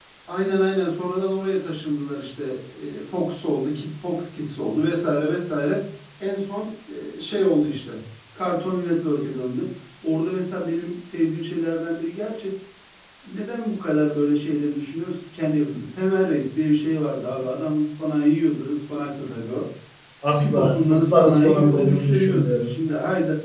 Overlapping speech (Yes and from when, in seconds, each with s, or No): Yes, from 20.4 s